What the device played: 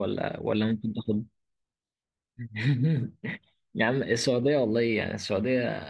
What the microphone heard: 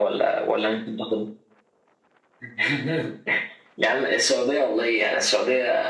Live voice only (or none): none